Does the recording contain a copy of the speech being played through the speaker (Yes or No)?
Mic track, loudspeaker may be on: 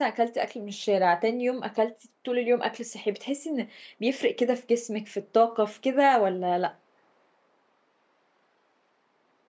No